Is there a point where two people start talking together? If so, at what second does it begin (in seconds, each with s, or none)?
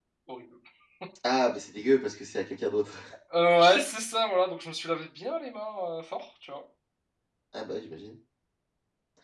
none